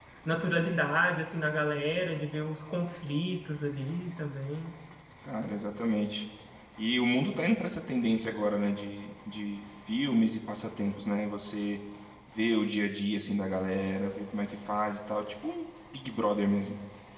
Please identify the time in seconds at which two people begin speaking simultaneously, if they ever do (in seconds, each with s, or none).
none